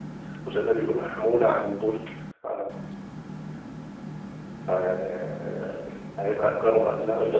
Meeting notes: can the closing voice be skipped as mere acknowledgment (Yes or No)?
No